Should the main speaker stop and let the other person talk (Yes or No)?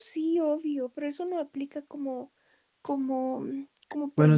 Yes